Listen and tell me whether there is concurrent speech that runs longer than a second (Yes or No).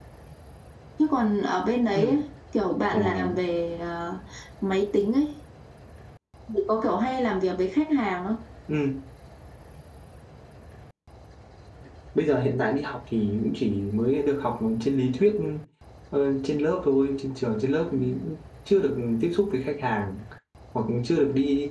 No